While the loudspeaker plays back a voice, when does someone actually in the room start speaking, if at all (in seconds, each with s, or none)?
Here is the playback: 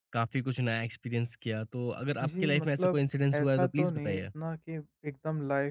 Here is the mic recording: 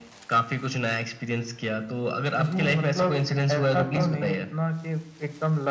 none